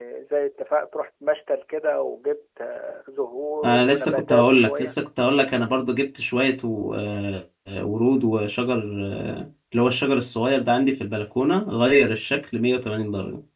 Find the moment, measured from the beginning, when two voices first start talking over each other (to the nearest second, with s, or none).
4 s